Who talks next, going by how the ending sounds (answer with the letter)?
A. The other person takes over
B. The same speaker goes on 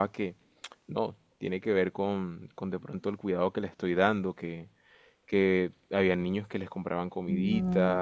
B